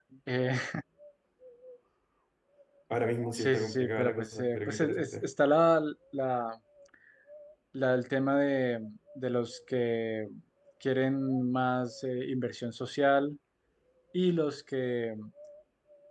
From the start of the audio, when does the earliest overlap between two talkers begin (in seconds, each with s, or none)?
3.3 s